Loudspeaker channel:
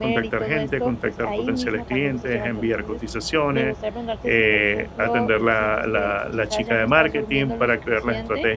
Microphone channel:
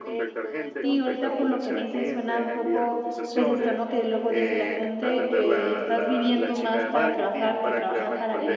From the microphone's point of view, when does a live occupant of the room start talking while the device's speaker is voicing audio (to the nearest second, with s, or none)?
1 s